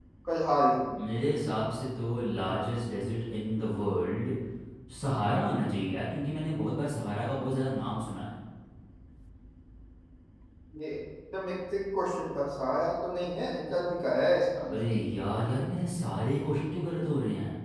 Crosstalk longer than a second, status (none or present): none